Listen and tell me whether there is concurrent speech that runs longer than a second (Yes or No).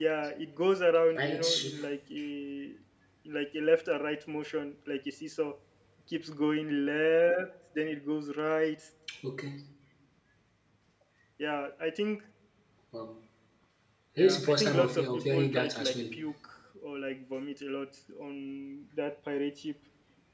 Yes